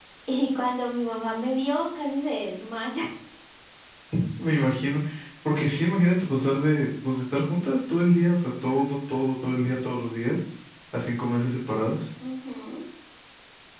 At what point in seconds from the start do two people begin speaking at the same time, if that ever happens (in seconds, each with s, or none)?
none